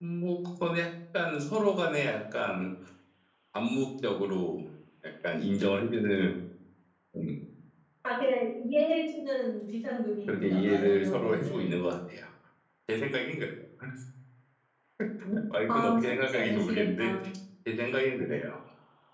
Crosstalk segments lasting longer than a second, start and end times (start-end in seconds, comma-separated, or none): 10.3-11.7, 15.7-17.1